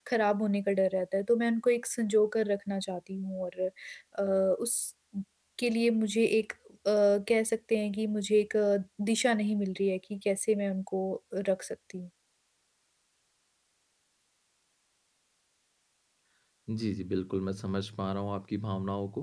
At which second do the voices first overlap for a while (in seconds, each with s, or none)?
none